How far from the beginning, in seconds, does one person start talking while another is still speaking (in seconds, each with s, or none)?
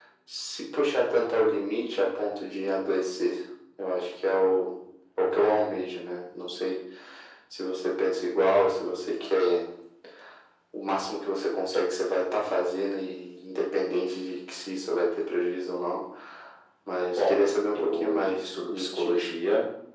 17.2 s